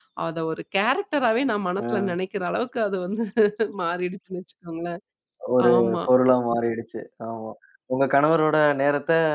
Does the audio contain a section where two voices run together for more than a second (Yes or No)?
No